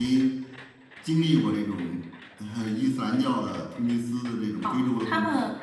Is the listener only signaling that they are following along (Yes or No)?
No